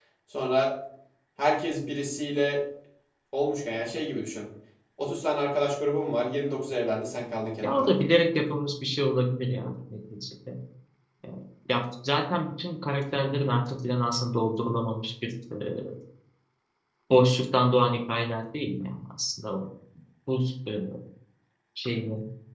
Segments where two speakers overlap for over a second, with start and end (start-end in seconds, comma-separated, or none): none